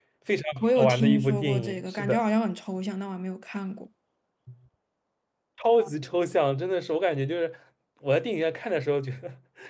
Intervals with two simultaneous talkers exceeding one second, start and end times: 0.6-2.2

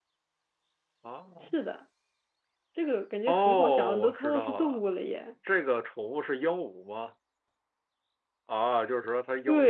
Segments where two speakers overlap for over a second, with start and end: 3.3-4.8

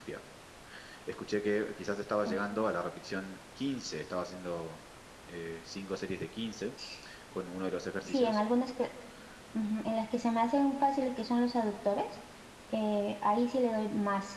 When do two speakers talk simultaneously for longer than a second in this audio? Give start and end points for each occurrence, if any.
none

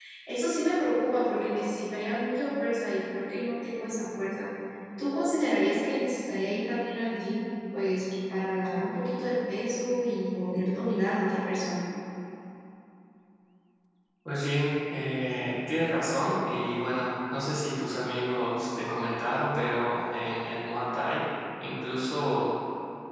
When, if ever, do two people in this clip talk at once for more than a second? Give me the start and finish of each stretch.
none

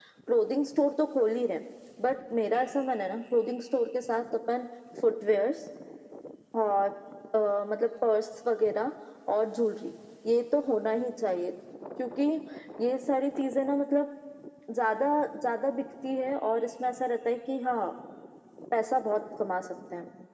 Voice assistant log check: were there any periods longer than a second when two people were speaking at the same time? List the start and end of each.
none

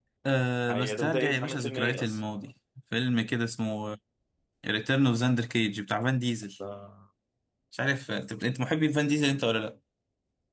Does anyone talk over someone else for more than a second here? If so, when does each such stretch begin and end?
0.7-2.2

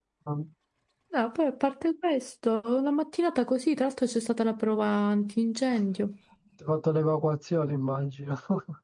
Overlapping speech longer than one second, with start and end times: none

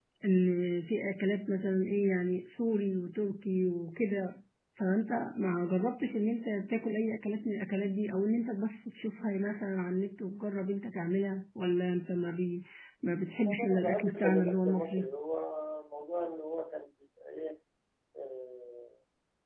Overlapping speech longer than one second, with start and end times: 13.5-15.1

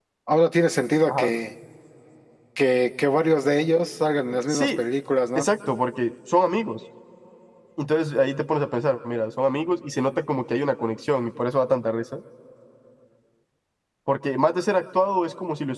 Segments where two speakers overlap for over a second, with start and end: none

